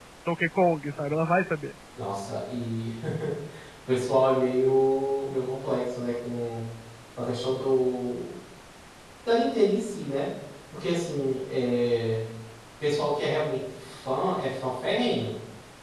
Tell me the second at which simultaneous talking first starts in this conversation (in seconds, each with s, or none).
none